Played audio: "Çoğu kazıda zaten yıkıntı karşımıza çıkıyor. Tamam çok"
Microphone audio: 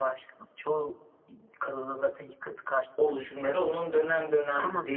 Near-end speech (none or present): present